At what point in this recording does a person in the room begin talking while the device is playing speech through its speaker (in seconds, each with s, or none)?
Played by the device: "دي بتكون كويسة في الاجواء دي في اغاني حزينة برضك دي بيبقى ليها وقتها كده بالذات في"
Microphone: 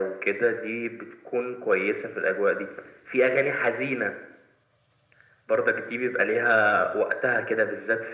none